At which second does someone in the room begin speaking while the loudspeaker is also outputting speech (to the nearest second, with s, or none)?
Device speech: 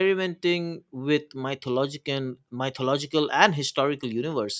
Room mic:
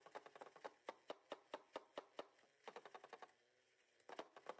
none